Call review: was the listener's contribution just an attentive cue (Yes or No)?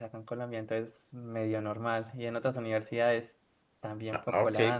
No